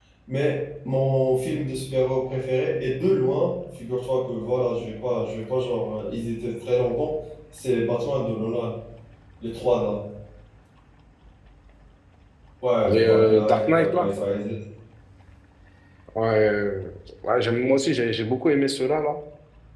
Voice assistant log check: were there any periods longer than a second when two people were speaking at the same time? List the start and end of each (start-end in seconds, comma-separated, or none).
12.8-14.1